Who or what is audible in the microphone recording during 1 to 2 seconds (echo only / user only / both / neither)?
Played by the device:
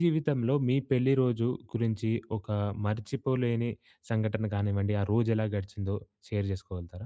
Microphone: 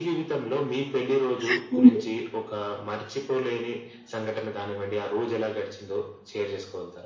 both